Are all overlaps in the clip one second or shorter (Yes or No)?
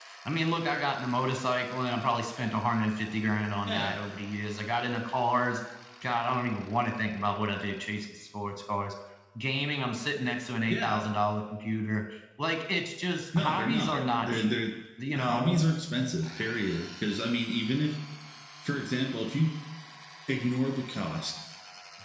No